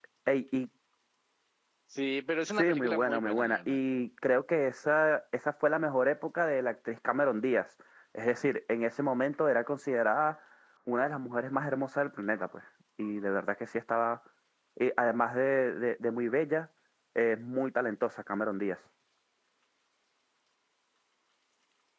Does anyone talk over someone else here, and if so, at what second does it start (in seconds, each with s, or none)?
2.6 s